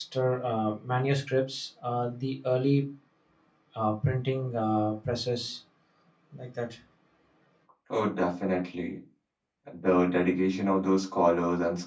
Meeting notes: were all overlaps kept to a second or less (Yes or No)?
Yes